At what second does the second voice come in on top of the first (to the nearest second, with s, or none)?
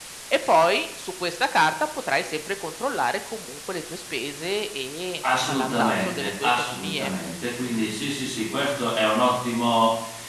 5 s